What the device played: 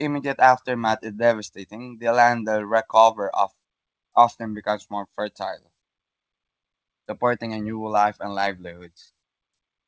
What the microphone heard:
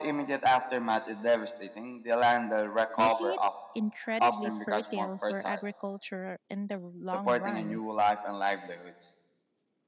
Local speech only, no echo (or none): making it incredibly fertile for agriculture in the long run.